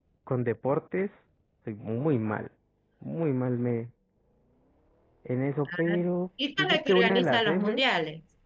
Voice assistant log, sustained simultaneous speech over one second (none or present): present